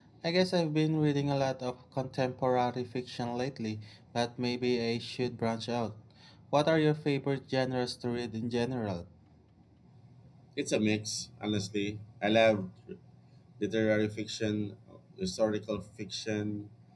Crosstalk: none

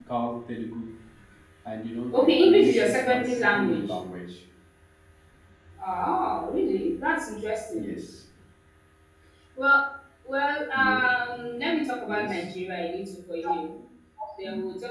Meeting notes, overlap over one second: present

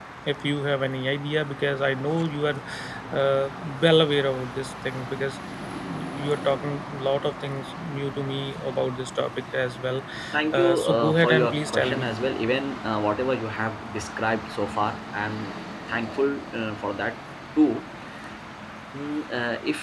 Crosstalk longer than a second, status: present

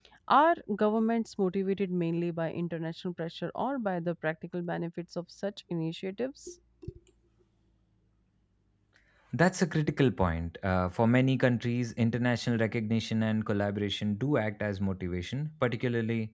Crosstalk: none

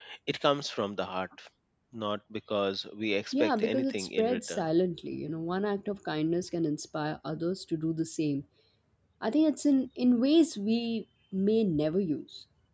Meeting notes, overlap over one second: present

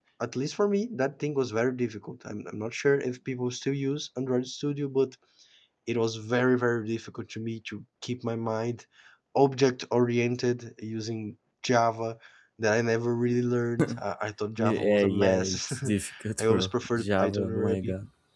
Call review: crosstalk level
present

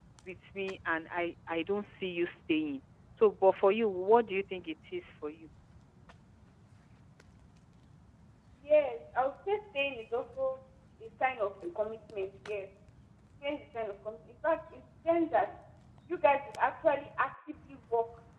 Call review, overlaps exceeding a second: none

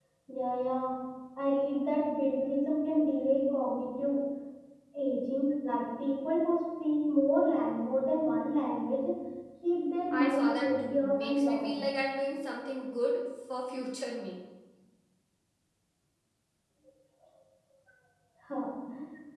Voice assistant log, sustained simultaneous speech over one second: present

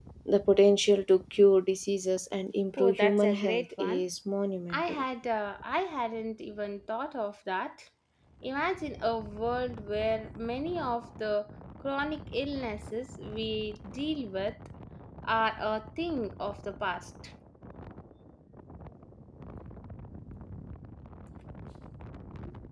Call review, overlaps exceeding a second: present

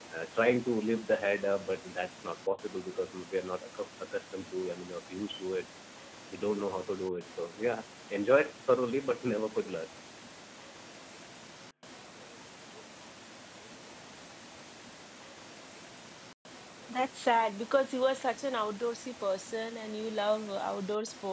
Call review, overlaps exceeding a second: none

